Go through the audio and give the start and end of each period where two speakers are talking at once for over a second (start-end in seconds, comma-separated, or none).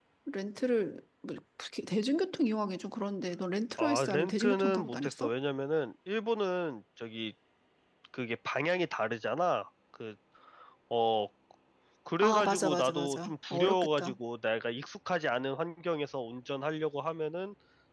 3.8-5.3, 12.2-14.2